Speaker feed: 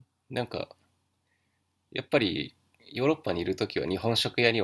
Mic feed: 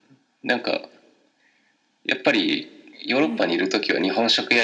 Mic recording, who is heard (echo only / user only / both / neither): both